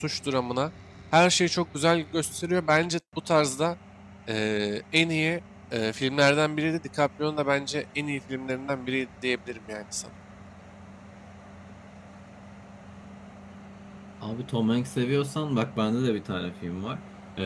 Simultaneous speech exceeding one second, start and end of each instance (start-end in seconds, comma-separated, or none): none